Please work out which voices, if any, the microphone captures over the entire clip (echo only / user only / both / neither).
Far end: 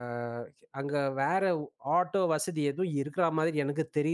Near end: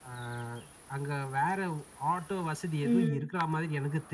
both